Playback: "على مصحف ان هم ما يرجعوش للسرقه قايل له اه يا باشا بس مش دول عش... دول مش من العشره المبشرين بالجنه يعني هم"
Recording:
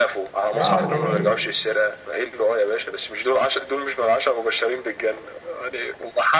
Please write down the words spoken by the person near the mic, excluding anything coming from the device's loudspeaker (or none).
لا هو جميل